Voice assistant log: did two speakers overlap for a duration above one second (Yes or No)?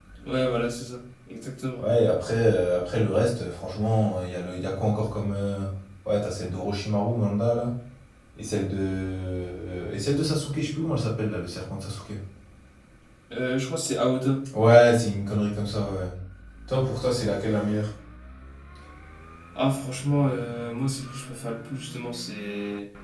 No